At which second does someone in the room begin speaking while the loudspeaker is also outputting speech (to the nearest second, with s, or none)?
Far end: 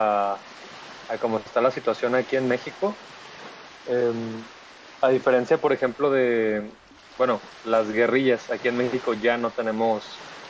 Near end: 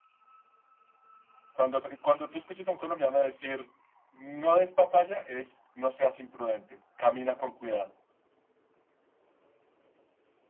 2 s